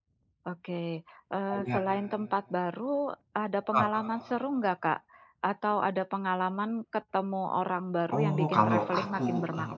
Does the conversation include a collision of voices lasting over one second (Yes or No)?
Yes